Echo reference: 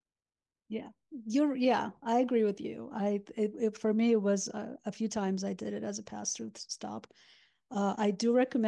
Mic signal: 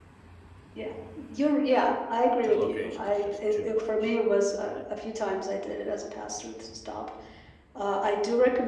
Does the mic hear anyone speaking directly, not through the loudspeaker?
Yes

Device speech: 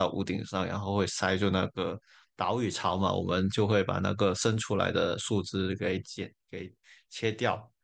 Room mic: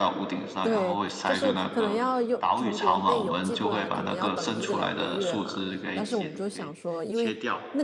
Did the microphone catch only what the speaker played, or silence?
No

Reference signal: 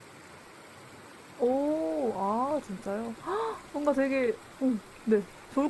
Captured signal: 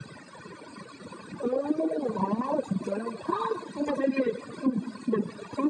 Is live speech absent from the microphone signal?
Yes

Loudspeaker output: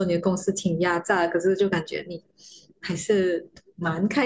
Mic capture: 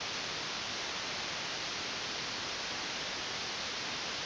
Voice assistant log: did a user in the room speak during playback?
No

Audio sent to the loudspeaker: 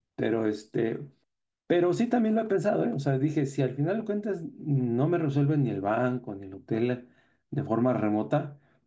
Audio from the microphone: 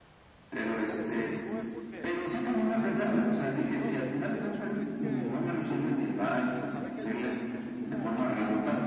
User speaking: Yes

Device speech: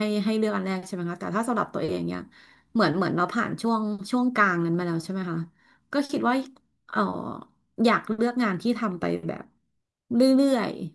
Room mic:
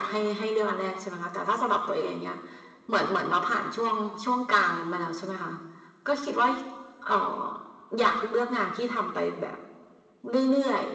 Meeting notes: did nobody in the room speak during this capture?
Yes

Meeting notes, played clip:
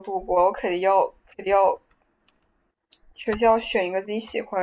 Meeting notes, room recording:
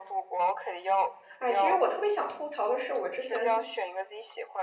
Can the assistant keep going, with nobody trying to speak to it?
No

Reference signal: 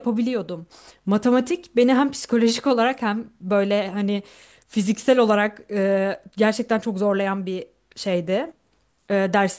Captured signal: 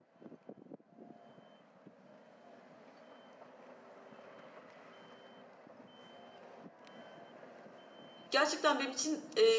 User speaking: Yes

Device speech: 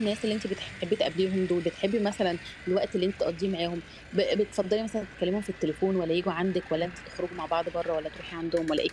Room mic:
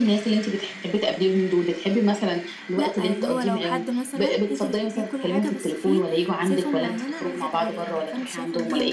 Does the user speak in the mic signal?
Yes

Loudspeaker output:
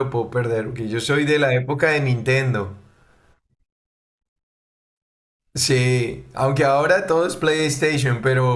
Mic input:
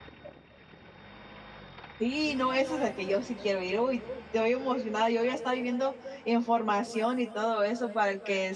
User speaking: Yes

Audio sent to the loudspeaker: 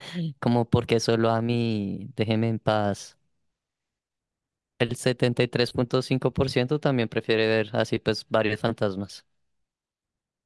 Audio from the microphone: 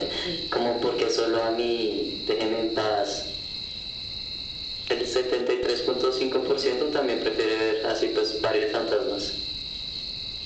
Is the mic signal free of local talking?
Yes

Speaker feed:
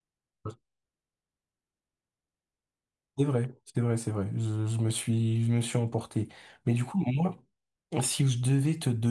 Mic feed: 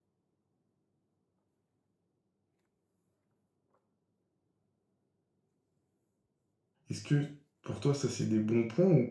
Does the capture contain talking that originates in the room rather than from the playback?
Yes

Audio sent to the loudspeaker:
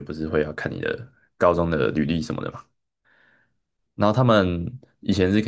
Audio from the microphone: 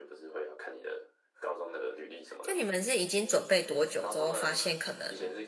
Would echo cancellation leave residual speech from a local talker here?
Yes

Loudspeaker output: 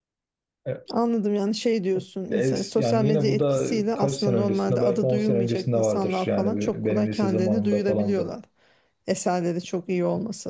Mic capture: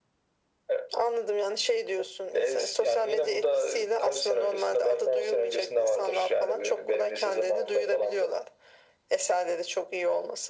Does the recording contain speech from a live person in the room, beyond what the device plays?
No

